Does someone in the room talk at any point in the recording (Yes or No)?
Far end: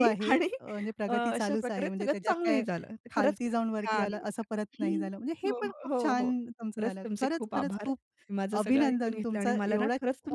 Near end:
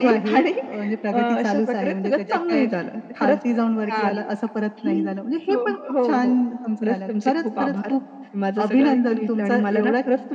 No